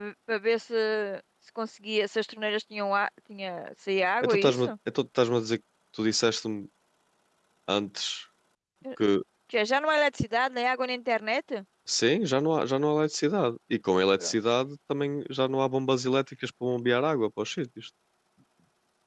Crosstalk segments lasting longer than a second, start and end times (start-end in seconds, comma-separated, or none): none